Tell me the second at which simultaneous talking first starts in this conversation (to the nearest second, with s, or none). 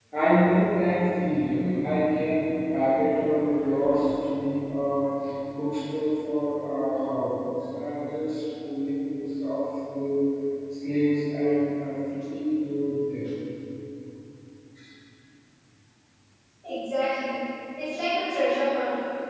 none